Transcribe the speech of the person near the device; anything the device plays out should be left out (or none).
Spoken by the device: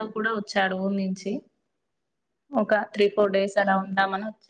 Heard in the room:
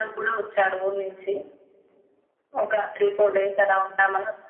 none